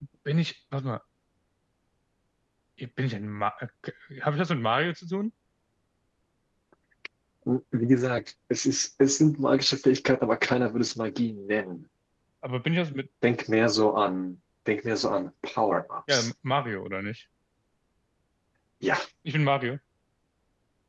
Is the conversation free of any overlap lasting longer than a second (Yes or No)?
Yes